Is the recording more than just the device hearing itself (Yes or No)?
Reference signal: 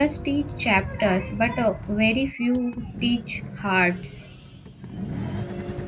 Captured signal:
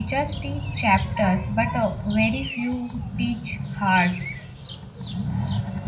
No